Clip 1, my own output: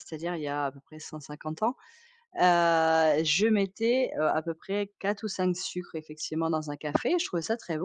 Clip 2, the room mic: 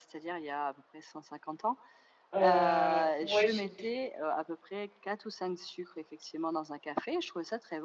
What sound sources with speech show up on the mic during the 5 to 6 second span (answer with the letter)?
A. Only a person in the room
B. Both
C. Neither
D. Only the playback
D